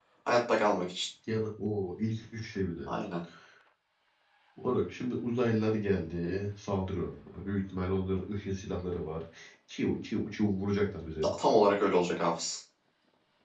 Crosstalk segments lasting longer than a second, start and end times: none

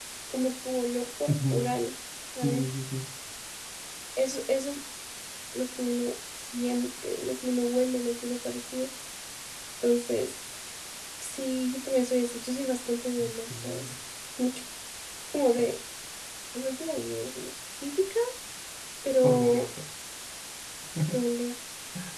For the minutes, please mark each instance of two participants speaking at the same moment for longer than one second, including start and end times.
none

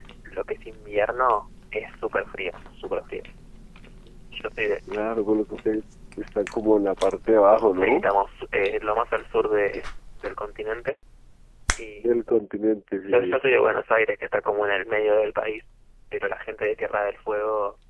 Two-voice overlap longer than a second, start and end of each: none

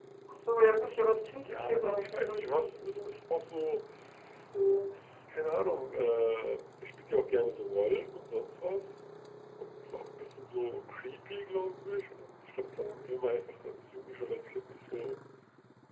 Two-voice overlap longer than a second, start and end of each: 1.4-3.1

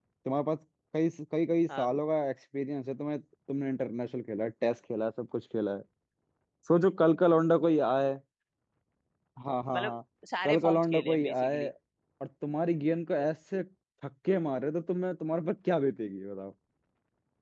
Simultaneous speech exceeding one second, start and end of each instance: 10.4-11.6

